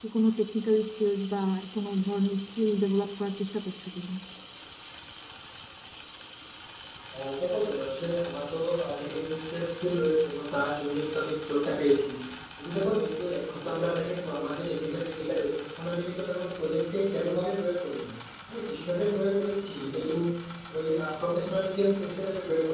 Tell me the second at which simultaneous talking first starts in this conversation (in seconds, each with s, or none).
none